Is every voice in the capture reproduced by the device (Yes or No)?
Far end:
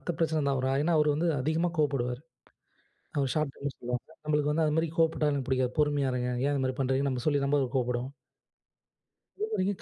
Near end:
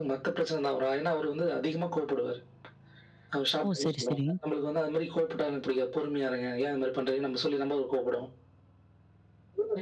No